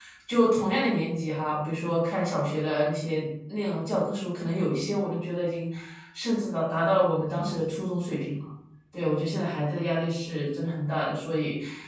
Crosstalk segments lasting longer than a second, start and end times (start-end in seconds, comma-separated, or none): none